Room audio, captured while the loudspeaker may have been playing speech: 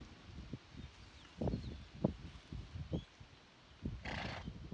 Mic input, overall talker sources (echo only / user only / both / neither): neither